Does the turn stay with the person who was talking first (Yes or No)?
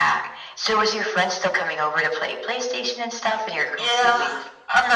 No